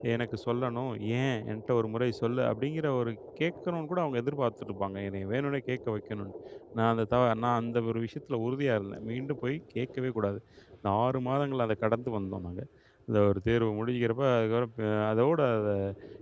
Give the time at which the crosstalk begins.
none

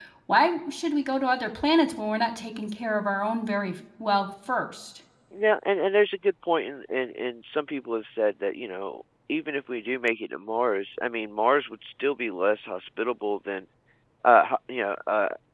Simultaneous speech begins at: none

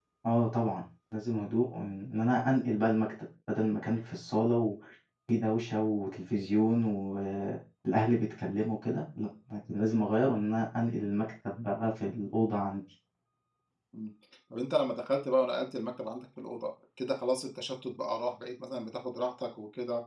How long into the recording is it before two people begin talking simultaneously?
none

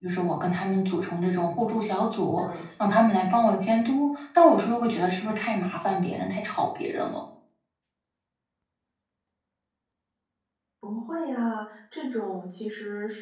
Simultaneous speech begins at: none

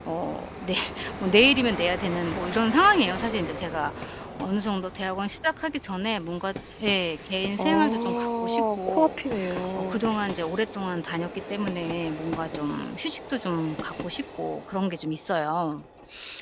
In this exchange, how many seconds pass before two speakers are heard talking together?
7.6 s

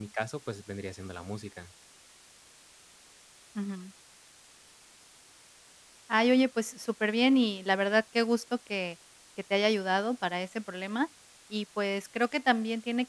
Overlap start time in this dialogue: none

